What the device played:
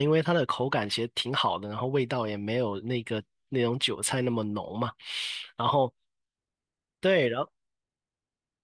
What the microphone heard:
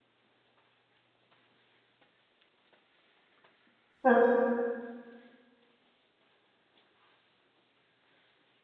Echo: none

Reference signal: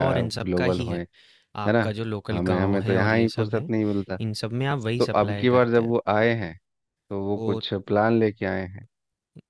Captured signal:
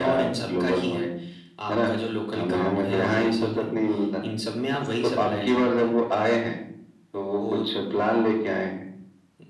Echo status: present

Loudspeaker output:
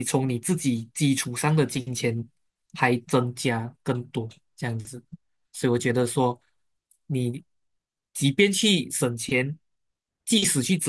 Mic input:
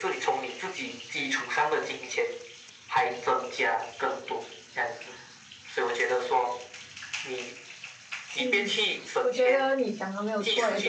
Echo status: present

